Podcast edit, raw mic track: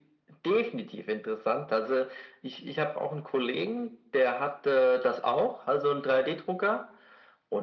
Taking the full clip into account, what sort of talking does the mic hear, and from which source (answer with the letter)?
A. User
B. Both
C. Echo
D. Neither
C